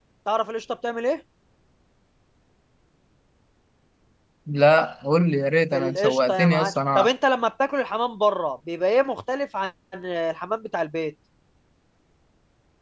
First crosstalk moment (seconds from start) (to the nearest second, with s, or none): 6 s